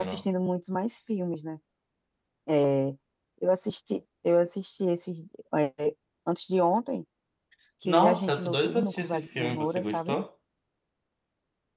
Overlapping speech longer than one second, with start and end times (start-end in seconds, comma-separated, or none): 7.8-10.2